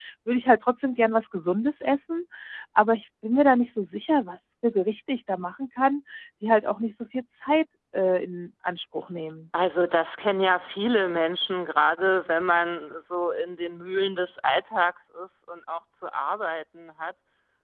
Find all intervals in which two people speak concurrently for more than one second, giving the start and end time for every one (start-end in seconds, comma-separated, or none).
none